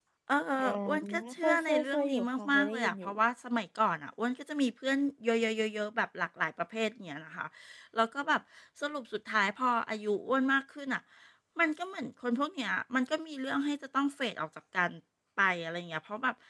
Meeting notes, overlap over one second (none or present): present